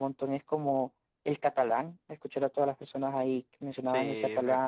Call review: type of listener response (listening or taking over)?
taking over